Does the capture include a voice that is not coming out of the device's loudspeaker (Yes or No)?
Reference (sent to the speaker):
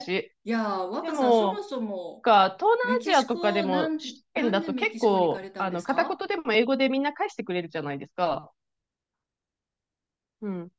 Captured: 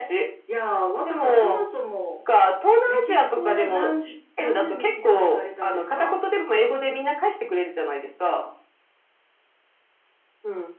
No